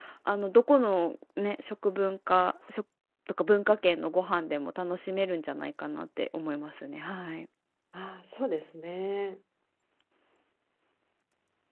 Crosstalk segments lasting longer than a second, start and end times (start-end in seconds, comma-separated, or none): none